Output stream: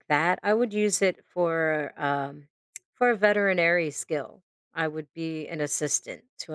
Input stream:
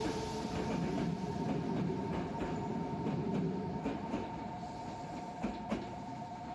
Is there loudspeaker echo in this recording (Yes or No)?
No